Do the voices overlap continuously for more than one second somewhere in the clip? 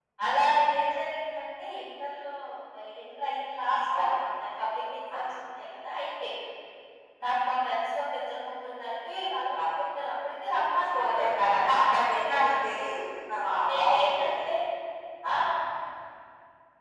Yes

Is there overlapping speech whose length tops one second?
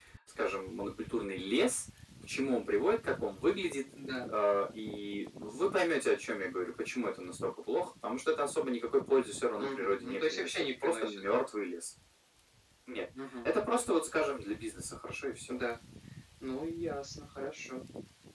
Yes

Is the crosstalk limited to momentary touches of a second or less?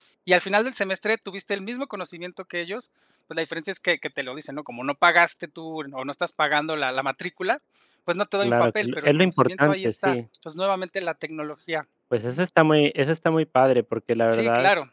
No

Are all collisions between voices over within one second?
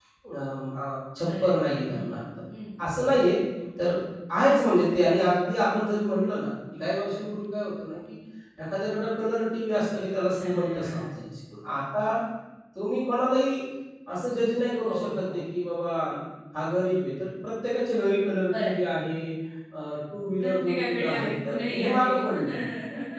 No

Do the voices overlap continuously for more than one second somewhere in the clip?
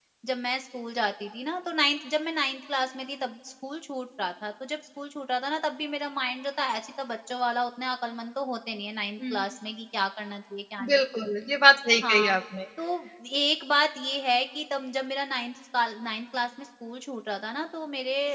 No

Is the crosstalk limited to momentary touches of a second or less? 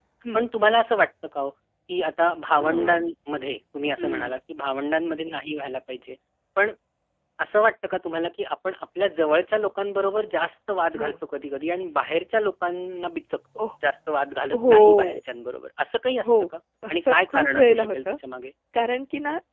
No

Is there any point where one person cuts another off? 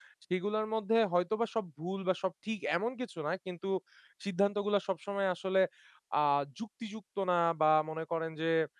No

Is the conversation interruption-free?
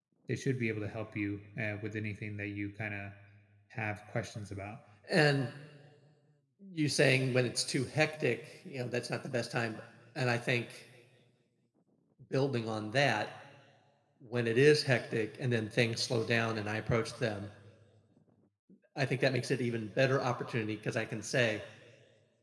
Yes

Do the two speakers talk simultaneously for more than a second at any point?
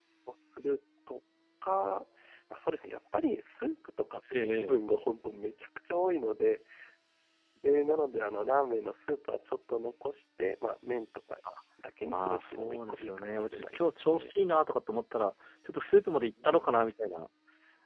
Yes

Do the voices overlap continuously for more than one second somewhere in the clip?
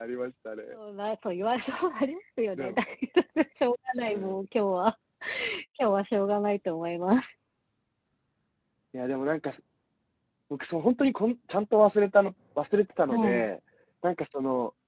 No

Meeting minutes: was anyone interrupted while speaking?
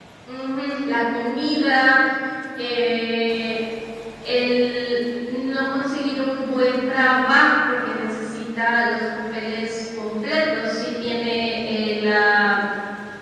No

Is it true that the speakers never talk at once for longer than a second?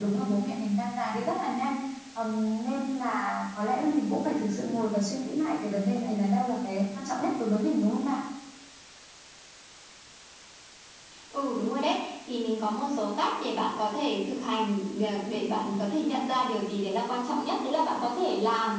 Yes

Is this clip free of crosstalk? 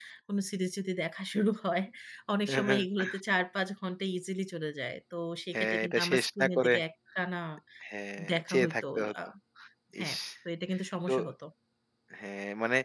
No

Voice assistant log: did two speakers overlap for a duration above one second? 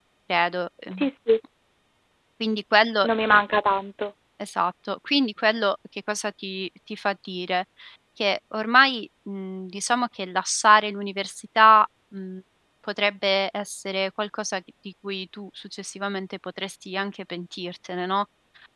No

